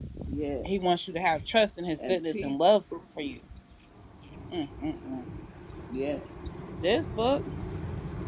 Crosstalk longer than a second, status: none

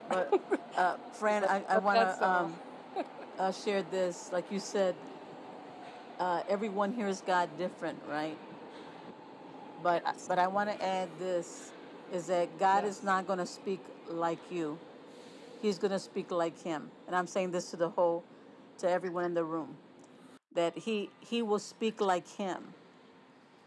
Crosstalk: present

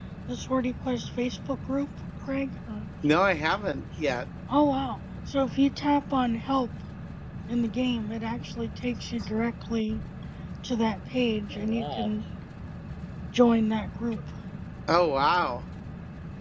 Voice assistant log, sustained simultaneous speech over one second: none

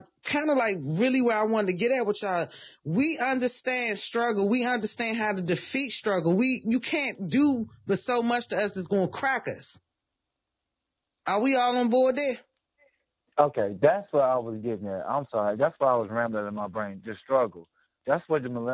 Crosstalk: none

